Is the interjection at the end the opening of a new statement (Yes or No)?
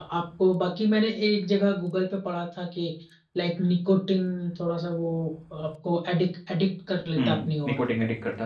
Yes